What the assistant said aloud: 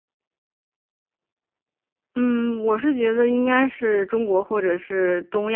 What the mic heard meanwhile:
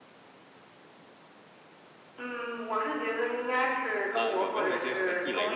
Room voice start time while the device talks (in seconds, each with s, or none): 4.1 s